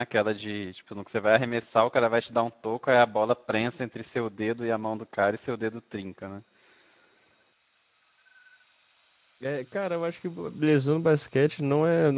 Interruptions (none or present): none